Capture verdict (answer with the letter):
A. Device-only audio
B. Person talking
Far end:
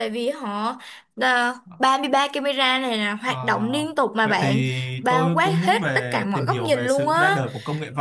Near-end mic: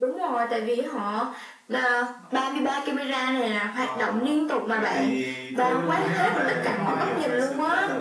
B